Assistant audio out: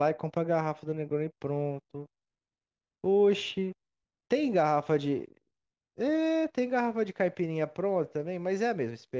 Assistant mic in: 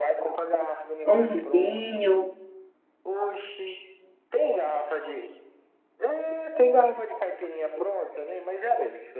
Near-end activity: present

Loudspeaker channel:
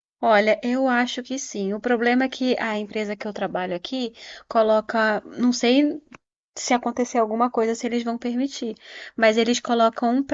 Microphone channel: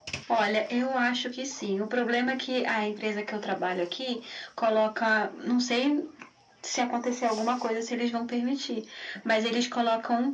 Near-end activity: none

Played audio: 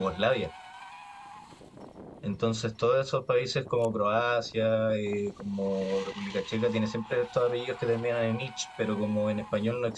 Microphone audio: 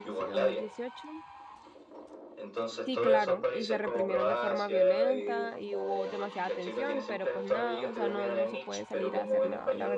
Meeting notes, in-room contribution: present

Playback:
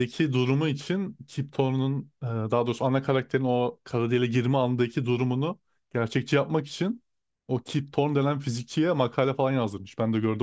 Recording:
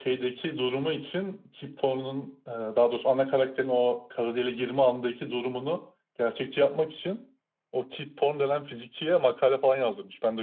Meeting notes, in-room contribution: none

